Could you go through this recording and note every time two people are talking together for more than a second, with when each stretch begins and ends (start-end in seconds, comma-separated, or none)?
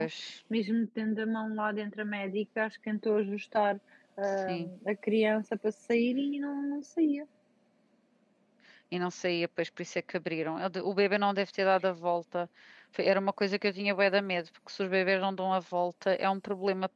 none